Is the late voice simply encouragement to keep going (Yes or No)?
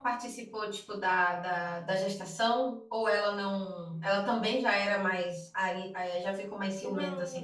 No